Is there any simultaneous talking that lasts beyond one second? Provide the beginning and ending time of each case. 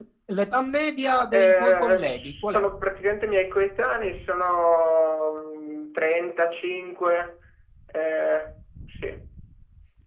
1.3-2.6

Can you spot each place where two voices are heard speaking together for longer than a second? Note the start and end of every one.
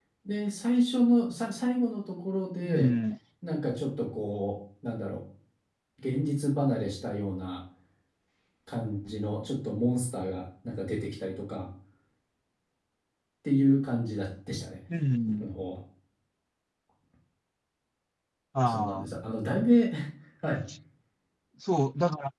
none

